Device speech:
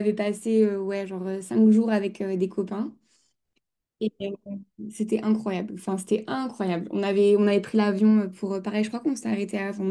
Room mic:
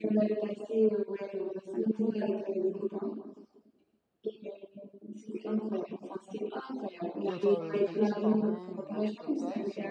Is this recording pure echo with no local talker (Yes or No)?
No